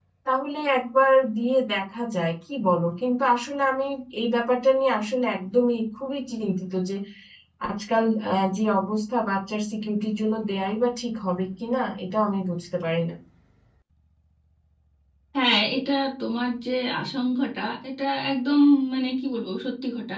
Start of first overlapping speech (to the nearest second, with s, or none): none